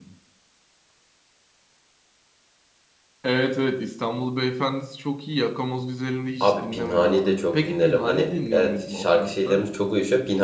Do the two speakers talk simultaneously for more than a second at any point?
Yes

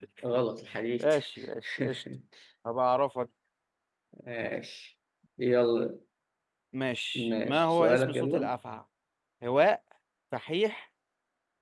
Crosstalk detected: Yes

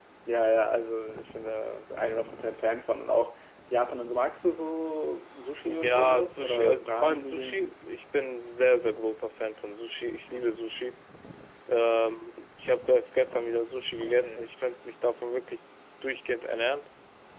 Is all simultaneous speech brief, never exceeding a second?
No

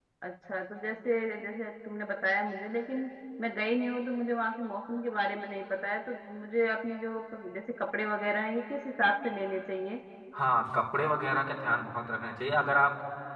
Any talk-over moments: No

